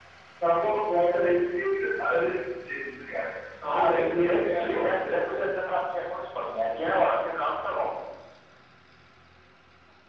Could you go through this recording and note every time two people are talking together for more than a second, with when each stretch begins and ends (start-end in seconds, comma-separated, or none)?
3.7-5.0